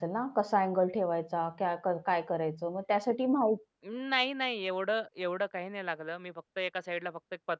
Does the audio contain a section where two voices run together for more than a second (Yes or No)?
No